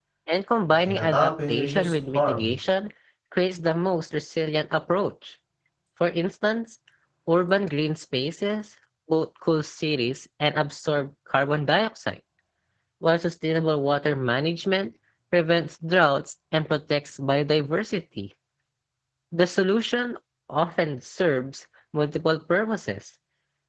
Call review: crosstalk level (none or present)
present